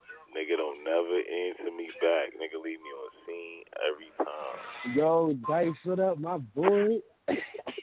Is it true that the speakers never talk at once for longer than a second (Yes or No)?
Yes